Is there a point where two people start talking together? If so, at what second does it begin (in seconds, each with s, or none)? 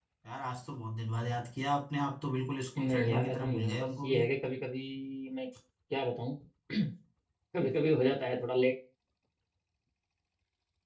2.8 s